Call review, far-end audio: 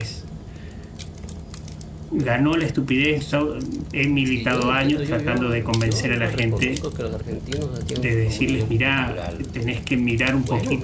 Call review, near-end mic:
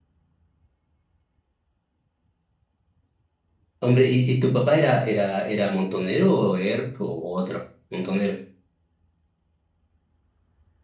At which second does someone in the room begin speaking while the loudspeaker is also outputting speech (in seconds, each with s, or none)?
3.8 s